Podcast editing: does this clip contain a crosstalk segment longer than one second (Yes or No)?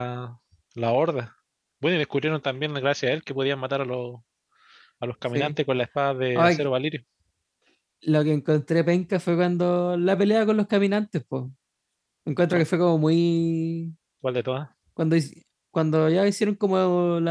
No